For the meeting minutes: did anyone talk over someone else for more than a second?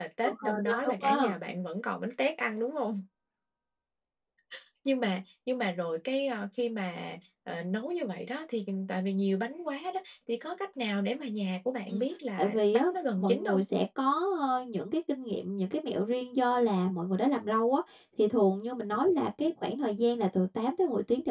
Yes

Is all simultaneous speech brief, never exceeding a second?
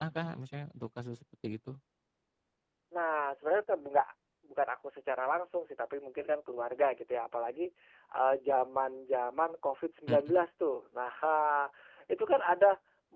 Yes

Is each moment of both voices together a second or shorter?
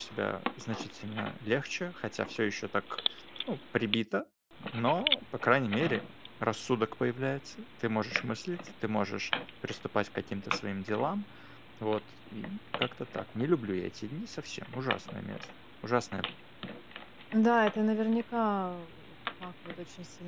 Yes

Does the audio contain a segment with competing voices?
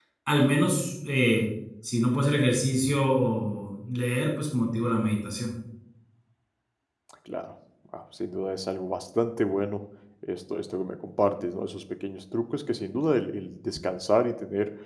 No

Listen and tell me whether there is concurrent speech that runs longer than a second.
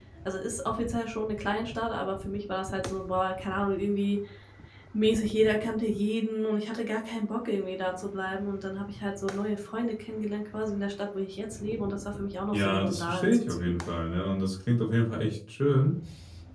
Yes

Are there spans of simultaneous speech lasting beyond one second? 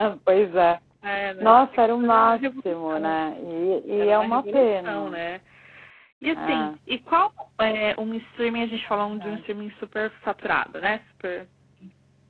Yes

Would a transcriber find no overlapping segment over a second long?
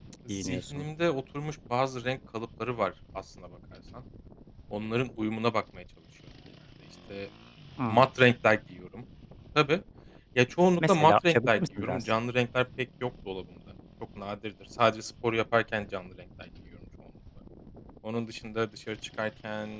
No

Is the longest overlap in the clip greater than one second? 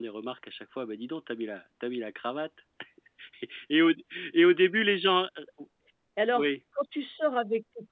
No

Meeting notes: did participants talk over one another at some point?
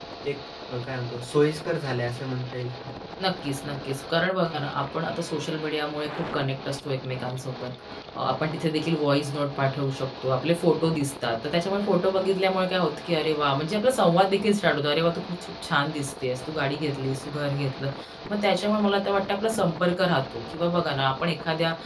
No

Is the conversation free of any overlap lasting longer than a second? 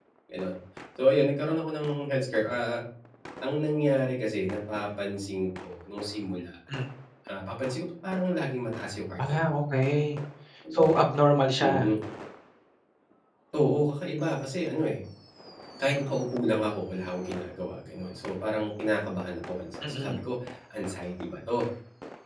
Yes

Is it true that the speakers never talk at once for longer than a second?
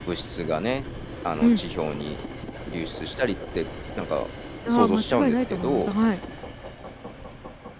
No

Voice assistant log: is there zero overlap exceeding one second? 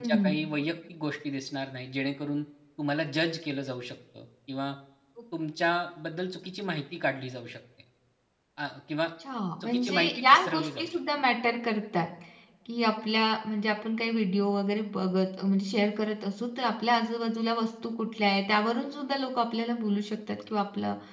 No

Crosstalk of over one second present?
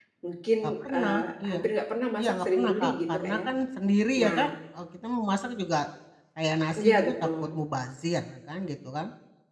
Yes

